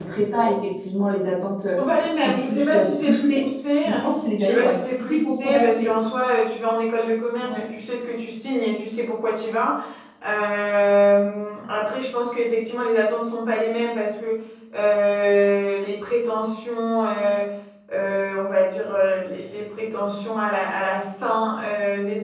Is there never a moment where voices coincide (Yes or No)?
No